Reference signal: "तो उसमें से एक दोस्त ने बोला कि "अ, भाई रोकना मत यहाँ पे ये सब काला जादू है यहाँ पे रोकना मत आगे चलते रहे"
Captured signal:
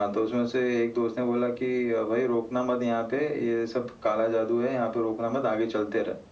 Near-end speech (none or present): none